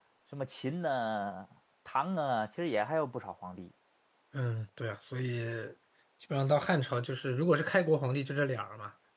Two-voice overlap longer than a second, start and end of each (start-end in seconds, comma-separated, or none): none